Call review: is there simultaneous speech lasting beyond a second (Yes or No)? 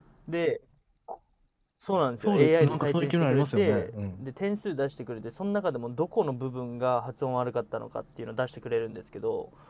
Yes